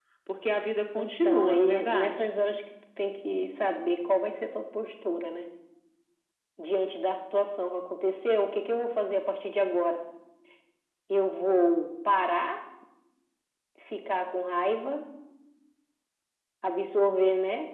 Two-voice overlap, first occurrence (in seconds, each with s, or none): 1.0 s